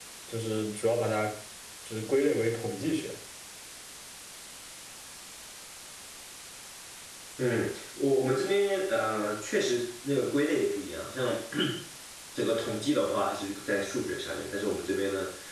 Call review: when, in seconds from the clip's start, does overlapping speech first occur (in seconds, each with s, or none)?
none